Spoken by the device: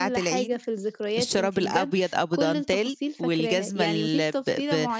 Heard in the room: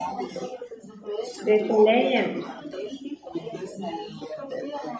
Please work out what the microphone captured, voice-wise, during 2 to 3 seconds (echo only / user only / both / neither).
both